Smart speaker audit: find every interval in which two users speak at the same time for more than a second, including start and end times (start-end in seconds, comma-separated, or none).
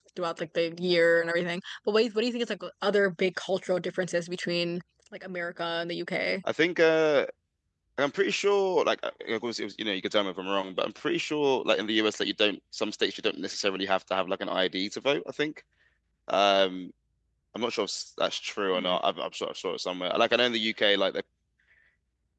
none